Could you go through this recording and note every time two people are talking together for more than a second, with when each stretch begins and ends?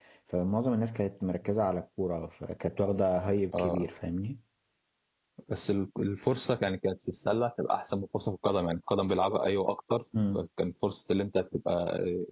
none

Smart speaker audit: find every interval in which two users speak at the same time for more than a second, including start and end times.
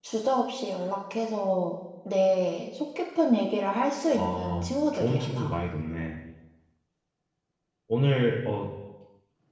4.1-5.5

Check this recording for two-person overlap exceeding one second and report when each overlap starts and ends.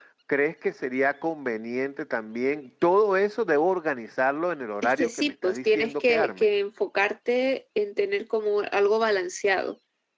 4.8-6.5

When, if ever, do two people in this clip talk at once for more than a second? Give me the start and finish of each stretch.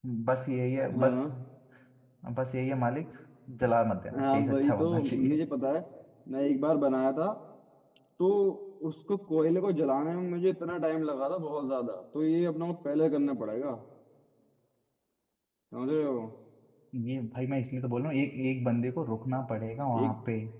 4.2-5.4

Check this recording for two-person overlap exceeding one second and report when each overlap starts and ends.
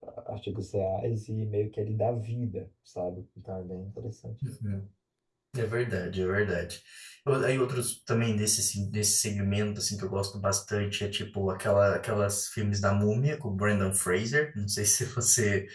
none

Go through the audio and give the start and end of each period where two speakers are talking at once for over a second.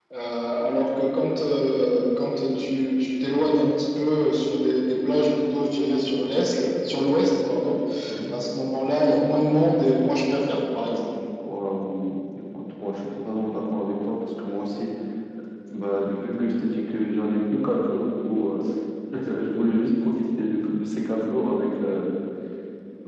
none

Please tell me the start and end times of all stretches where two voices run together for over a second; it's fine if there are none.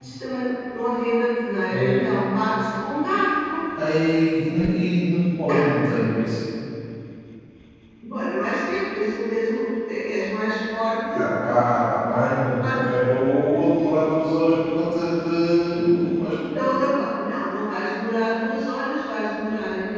none

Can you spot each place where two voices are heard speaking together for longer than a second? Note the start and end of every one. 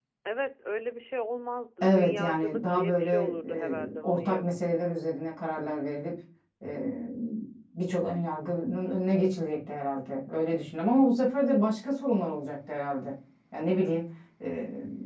1.8-4.6

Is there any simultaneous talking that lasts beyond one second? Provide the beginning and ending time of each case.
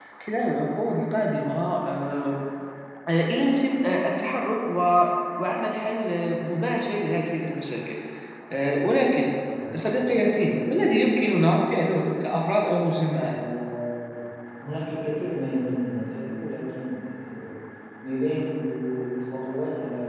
none

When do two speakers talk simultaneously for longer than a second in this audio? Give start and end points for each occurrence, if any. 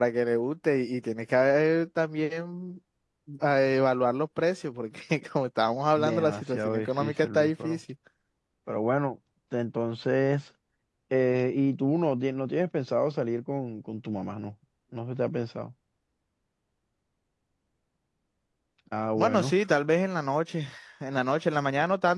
6.0-7.8

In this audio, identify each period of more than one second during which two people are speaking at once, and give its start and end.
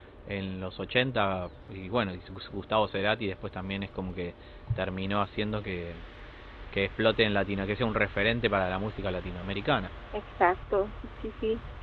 none

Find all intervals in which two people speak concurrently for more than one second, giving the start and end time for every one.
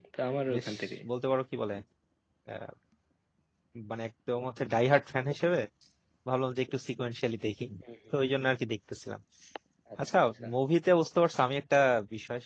none

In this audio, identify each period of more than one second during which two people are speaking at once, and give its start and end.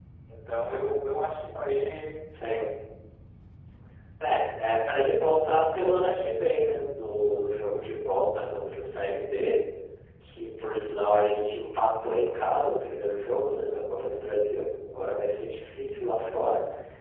none

